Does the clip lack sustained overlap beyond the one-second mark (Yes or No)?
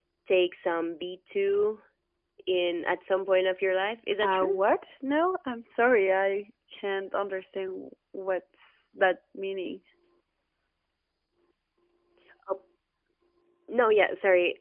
Yes